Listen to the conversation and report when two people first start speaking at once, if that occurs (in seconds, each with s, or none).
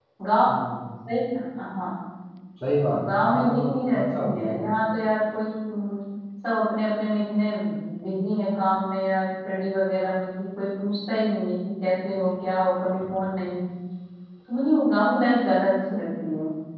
2.9 s